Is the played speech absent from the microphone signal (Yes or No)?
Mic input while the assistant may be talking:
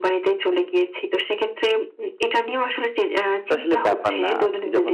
No